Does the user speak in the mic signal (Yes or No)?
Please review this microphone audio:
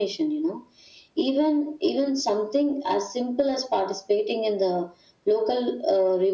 No